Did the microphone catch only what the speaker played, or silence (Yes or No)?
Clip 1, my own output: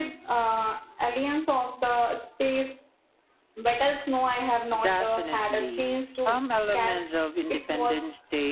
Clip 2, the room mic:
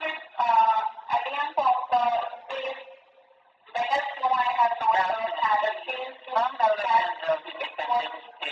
Yes